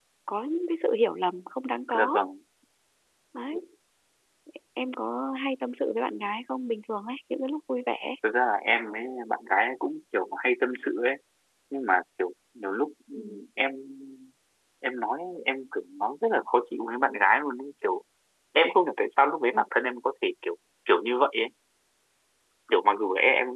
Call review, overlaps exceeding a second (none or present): none